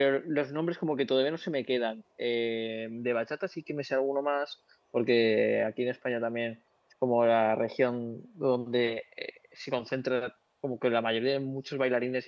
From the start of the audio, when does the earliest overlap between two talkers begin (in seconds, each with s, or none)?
none